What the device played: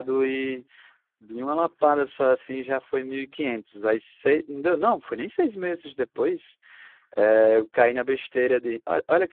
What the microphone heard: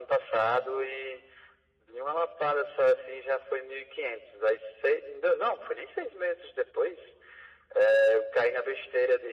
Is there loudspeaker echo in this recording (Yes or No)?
Yes